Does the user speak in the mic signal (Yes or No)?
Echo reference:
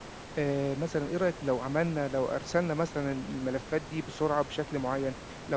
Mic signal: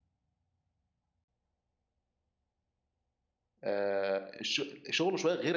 Yes